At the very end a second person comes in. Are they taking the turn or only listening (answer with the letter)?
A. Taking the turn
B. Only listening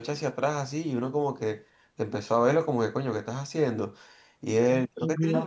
B